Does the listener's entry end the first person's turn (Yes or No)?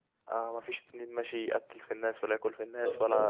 No